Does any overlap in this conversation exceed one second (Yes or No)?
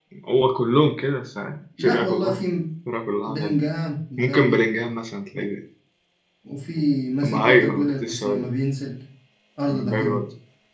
Yes